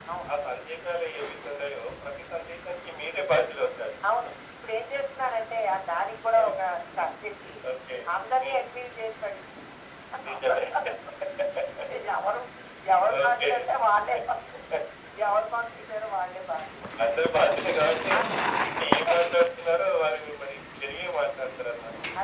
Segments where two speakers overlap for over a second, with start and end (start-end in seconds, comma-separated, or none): none